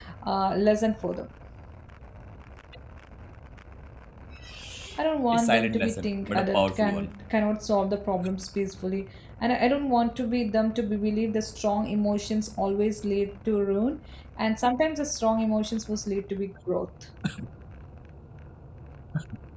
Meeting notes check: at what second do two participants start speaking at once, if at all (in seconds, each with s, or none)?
5.3 s